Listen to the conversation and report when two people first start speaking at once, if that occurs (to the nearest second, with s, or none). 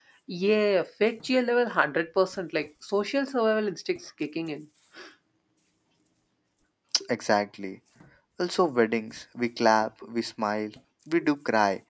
none